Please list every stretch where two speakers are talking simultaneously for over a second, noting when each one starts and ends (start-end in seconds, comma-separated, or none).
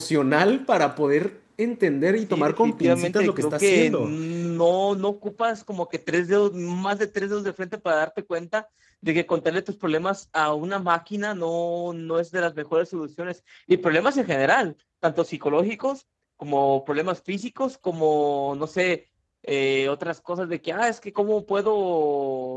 2.3-4.2